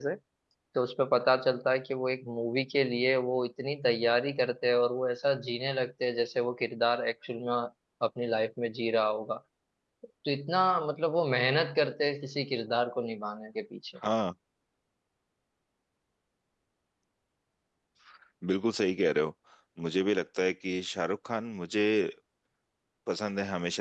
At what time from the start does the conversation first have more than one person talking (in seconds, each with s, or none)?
none